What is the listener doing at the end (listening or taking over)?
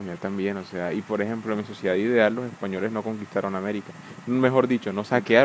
listening